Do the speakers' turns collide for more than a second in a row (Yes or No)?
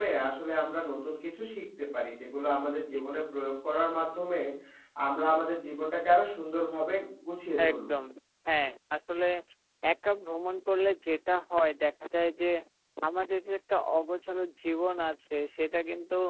No